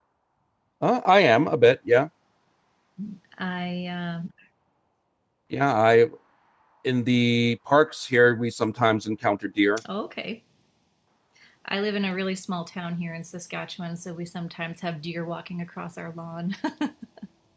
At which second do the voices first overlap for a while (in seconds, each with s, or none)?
none